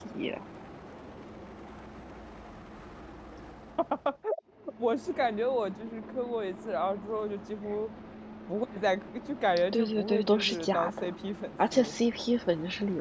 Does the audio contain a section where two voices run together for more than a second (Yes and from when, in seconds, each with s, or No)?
Yes, from 9.7 s